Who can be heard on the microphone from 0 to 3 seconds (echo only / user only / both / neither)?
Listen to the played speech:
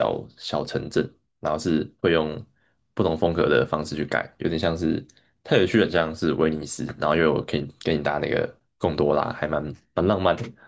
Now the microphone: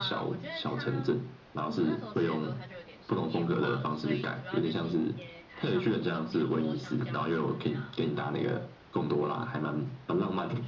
both